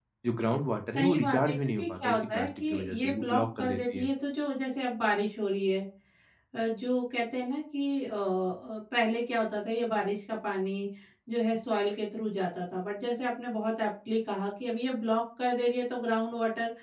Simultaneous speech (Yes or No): Yes